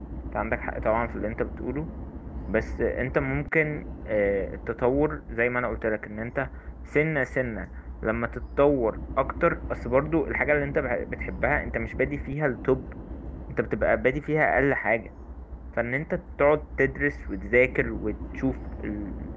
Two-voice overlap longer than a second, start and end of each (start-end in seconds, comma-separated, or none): none